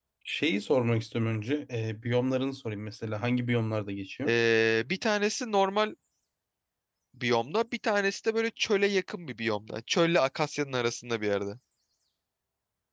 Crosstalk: none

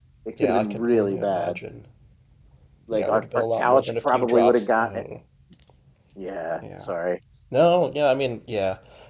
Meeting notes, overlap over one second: present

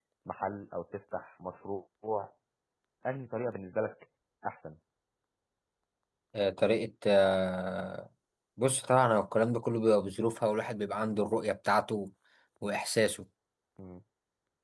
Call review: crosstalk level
none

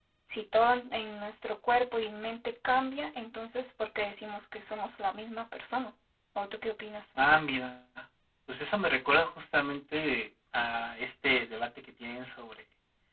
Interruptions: none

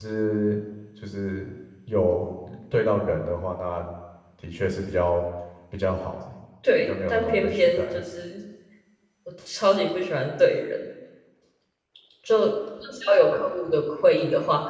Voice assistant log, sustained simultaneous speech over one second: present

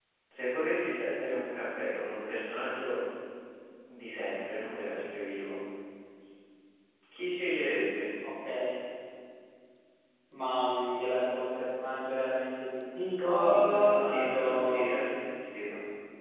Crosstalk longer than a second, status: present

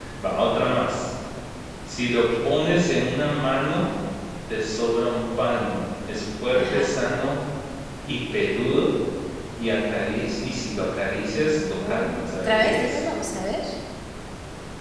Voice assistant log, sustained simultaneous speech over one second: present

